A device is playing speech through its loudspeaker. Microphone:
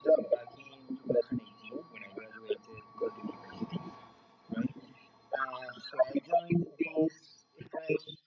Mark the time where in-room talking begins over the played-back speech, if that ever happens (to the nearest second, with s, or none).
none